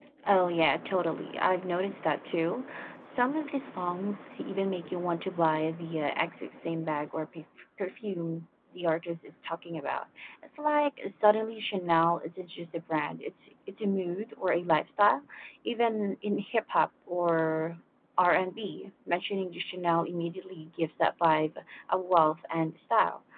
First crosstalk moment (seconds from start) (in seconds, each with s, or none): none